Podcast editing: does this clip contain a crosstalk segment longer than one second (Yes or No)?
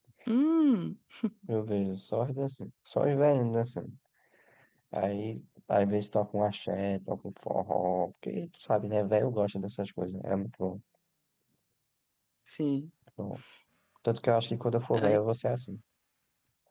No